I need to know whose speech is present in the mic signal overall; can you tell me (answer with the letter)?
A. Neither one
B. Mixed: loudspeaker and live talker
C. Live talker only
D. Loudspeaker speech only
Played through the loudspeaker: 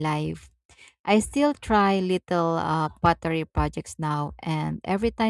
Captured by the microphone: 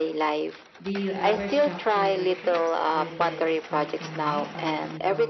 B